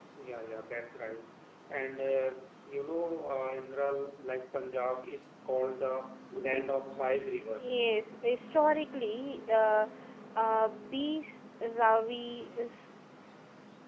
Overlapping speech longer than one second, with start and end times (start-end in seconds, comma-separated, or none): none